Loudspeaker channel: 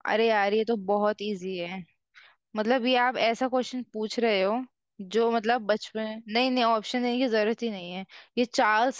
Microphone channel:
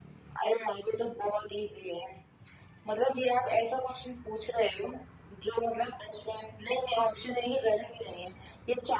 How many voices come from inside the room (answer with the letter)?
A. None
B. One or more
A